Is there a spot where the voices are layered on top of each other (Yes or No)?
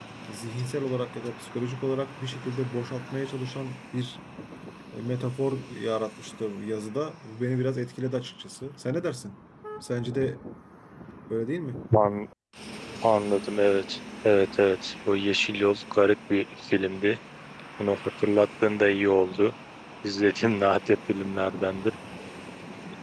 No